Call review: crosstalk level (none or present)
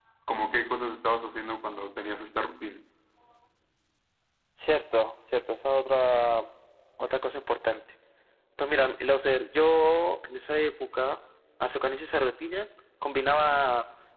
none